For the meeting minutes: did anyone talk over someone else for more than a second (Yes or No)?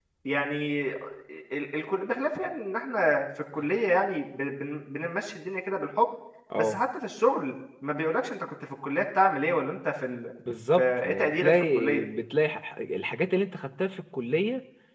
Yes